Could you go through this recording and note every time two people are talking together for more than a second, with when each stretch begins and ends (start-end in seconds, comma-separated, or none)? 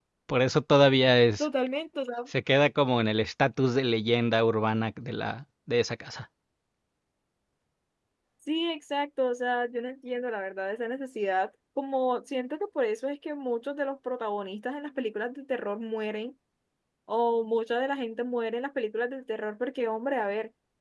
none